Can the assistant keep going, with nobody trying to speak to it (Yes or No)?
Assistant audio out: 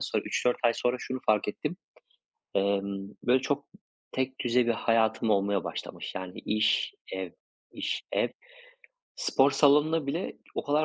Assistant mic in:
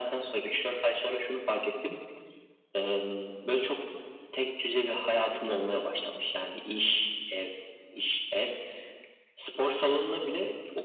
Yes